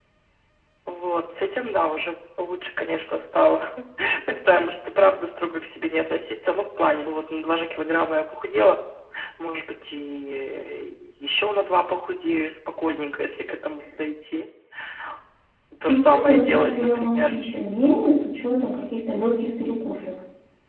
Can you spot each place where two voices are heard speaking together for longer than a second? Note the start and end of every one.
15.8-17.3

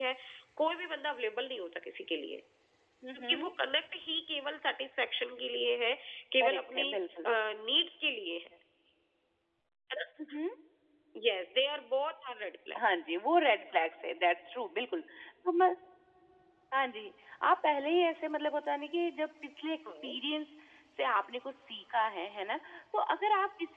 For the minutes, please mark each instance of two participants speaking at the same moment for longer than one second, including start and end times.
none

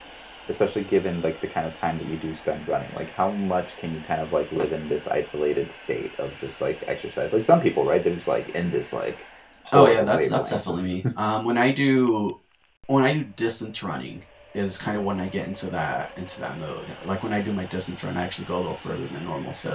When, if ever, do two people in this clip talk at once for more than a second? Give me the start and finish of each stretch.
9.7-11.0

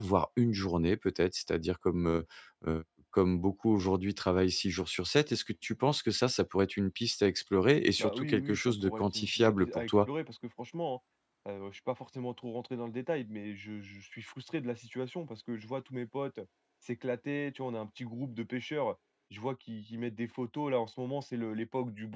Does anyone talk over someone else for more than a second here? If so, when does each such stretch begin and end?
8.0-10.1

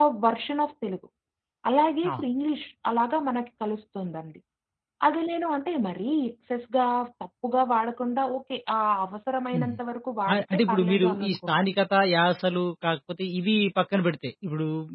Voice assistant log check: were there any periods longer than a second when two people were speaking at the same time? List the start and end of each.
10.3-11.5

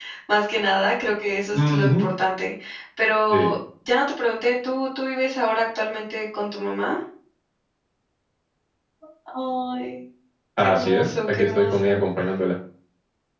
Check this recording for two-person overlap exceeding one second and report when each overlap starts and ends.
10.6-12.0

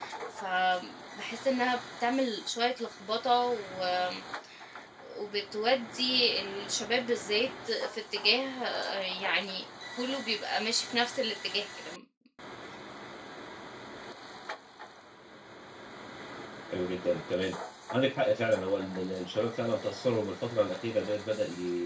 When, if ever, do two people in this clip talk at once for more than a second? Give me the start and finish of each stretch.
none

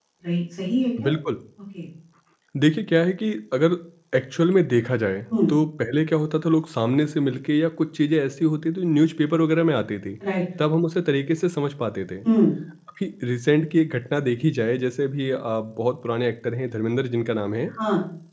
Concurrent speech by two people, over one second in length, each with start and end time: none

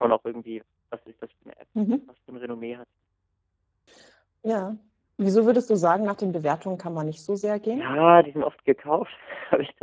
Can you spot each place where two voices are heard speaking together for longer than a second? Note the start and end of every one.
none

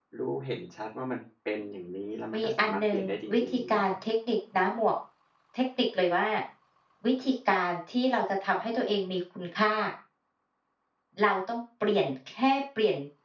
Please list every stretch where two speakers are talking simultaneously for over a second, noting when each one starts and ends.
2.4-3.8

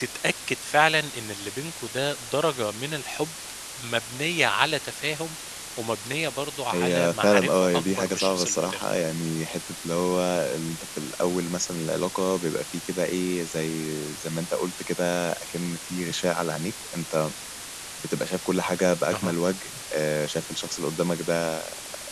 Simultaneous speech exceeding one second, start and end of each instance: 6.7-8.8

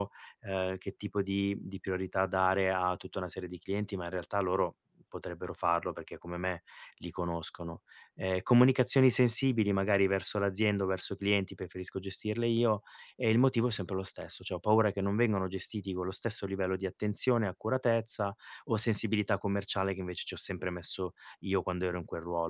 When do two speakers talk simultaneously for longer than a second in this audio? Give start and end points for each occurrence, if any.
none

